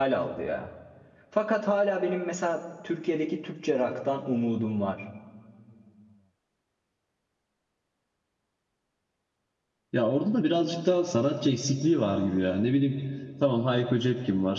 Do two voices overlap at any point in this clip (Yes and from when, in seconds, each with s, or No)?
No